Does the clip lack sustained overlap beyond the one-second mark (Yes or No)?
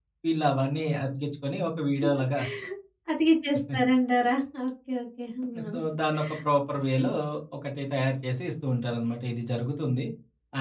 Yes